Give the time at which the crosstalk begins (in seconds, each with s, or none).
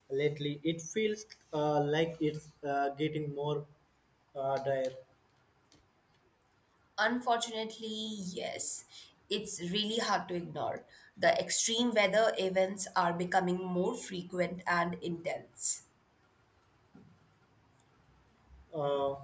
none